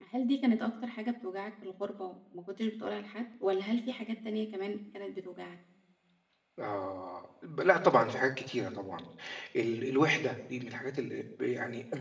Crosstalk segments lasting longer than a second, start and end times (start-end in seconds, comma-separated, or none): none